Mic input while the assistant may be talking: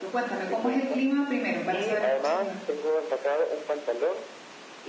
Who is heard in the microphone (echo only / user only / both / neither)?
both